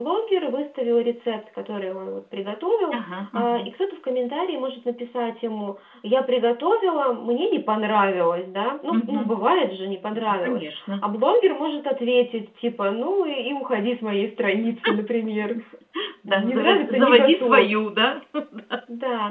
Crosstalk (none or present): present